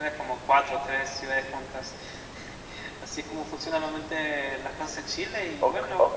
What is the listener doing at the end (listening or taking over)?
taking over